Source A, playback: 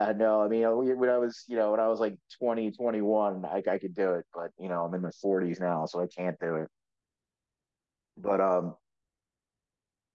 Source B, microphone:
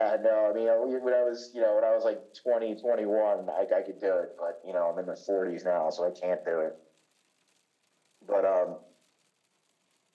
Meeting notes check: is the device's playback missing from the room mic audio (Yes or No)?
No